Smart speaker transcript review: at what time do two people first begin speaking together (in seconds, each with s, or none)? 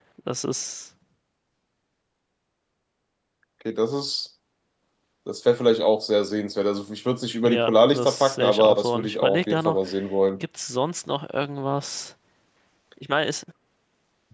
7.4 s